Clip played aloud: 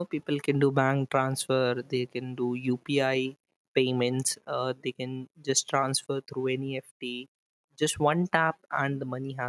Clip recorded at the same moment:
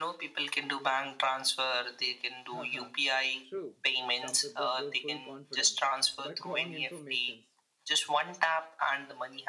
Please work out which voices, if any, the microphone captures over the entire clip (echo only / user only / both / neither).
both